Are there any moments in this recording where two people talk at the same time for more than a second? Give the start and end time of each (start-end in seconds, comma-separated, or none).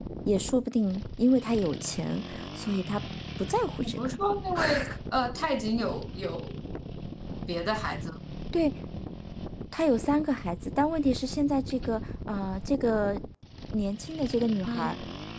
none